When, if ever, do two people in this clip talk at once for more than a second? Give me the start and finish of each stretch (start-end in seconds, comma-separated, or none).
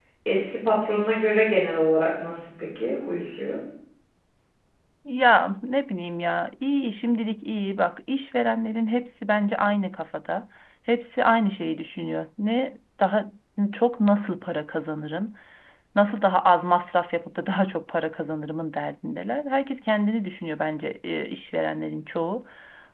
none